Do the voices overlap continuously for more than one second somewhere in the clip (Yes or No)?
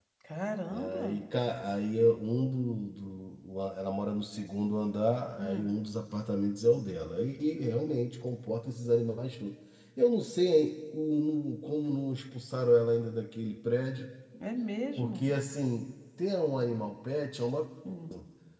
No